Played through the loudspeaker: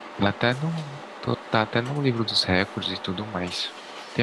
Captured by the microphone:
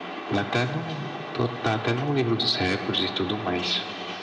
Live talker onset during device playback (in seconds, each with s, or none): none